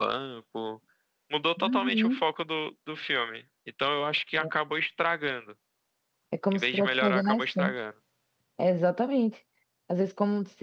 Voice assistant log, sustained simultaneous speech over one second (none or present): present